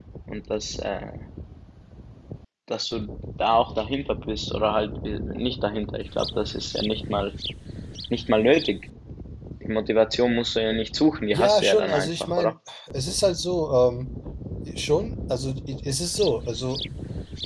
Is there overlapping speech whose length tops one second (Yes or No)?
Yes